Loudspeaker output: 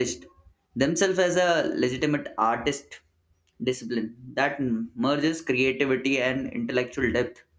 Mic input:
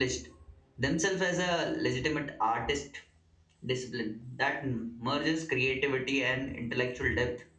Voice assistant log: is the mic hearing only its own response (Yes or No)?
Yes